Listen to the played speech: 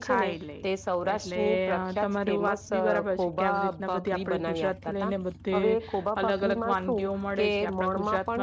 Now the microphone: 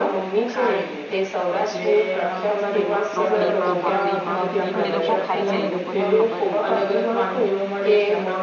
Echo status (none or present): present